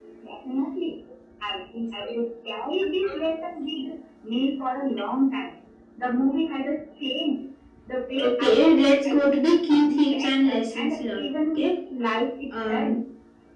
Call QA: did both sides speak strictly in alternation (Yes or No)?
No